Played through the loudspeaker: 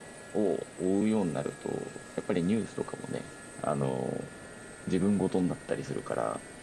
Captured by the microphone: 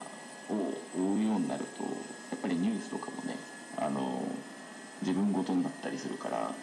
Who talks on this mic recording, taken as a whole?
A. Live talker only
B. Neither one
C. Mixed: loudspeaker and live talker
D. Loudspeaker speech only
D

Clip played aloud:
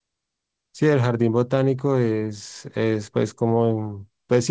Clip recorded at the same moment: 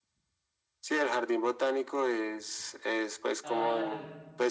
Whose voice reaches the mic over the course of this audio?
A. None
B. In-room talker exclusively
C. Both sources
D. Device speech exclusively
C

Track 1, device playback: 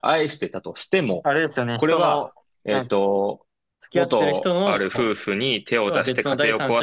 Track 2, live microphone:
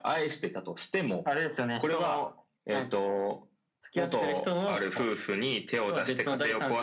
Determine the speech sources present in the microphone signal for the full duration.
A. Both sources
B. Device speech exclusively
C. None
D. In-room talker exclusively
B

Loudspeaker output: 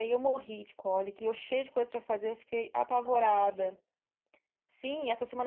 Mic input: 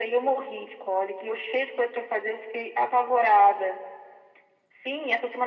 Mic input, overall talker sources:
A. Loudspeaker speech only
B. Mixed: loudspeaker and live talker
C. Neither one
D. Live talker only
A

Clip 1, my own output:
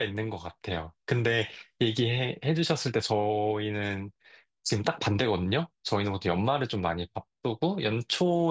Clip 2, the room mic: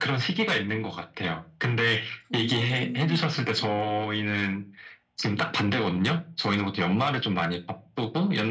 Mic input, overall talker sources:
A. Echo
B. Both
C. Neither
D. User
B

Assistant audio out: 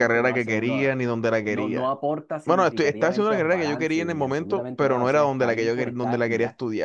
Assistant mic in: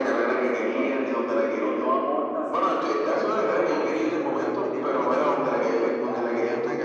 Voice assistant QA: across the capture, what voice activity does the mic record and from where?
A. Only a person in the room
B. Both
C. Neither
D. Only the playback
B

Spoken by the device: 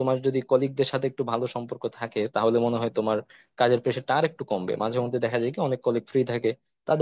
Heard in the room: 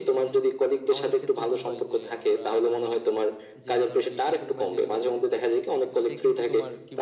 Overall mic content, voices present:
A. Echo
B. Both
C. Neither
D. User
B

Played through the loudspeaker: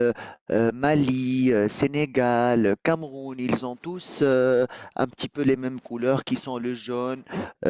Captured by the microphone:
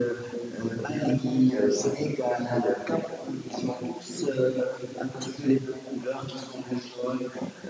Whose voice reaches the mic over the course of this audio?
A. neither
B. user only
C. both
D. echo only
D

